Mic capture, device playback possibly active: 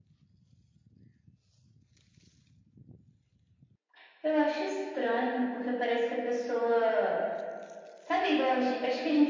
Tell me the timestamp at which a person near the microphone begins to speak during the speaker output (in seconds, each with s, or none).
none